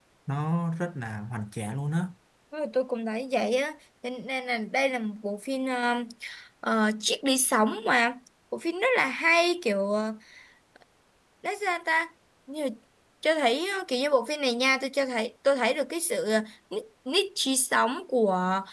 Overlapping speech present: No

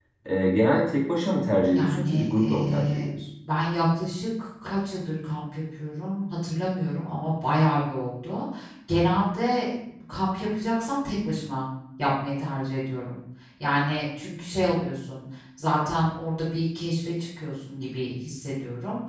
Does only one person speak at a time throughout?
No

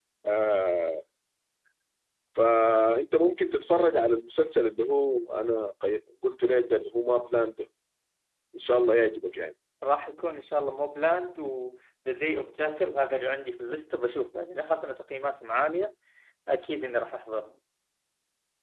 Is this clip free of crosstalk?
Yes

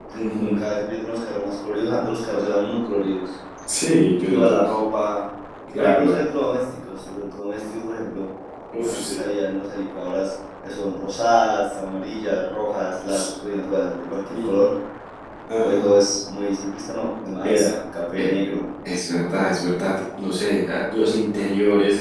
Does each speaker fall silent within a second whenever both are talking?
Yes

